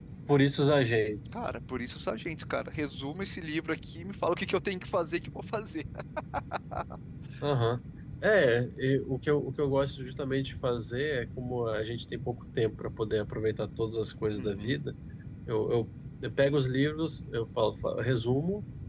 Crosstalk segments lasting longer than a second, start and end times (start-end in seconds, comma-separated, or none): none